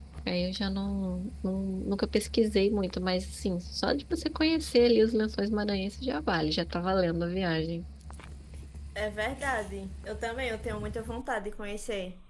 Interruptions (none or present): none